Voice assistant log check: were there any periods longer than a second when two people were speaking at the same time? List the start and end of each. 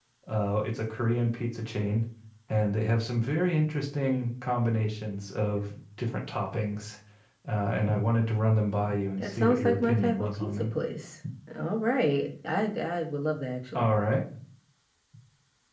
9.2-10.7

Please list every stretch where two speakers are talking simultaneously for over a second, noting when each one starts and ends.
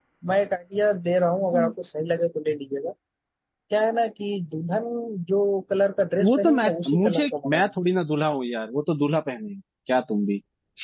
6.2-7.7

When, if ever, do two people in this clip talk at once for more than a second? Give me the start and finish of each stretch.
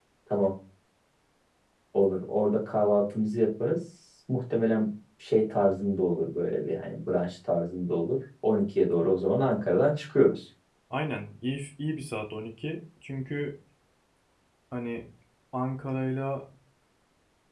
none

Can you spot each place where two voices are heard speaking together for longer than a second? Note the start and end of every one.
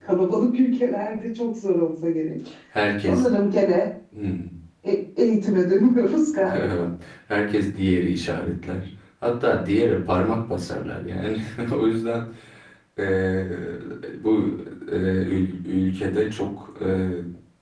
none

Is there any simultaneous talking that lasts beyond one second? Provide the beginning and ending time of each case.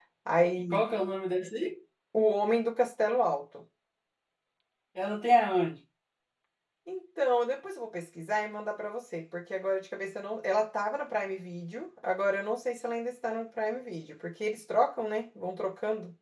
none

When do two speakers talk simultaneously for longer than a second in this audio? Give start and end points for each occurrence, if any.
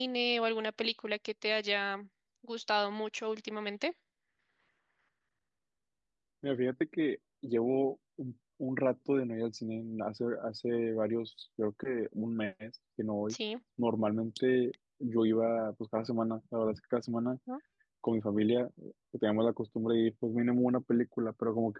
none

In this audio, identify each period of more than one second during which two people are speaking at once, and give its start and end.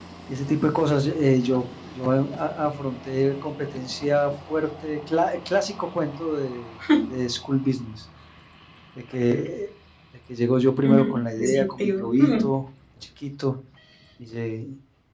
10.8-12.5

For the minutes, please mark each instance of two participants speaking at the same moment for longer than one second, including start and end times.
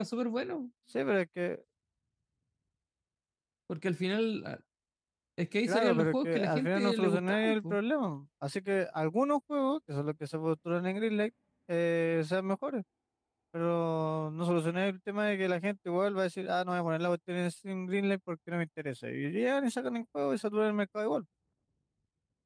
5.7-7.8

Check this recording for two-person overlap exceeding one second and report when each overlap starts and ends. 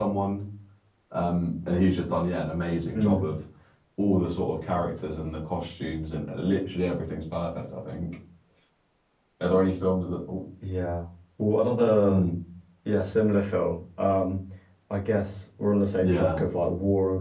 none

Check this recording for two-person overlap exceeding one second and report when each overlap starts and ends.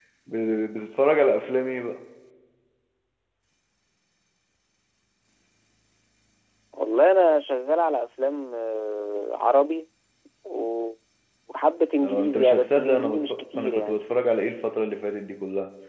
12.0-14.0

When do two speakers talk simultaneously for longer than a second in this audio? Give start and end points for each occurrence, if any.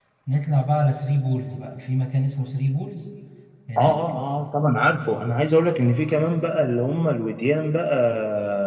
none

